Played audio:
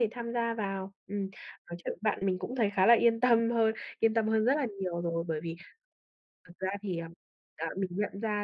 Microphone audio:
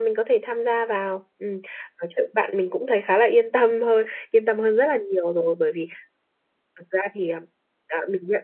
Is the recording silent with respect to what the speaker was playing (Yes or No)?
No